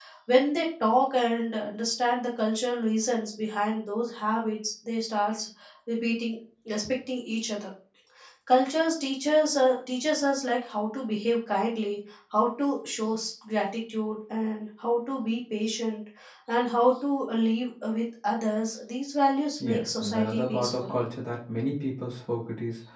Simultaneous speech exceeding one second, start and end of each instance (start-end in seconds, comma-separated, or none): 19.6-20.9